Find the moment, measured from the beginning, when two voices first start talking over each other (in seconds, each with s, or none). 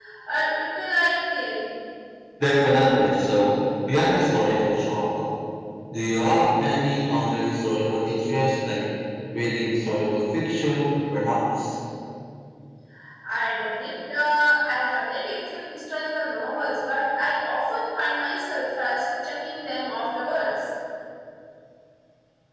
none